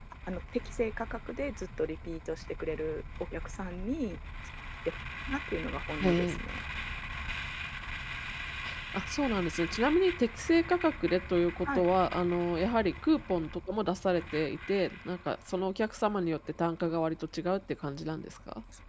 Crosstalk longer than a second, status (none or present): none